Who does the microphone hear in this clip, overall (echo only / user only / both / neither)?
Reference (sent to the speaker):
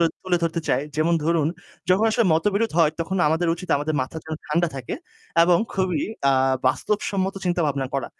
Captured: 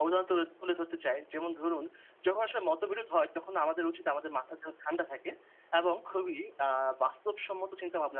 echo only